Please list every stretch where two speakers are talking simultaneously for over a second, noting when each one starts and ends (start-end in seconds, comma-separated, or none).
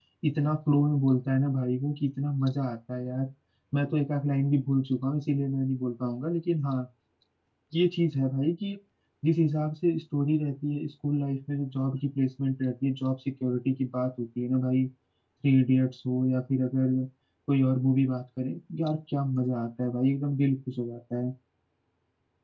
none